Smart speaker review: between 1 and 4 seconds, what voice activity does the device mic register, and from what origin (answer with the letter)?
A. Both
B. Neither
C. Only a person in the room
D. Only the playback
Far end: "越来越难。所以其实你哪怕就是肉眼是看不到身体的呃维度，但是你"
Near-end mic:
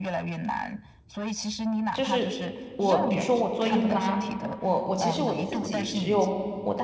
A